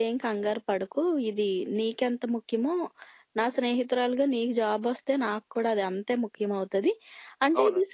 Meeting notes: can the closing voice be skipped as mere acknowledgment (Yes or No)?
Yes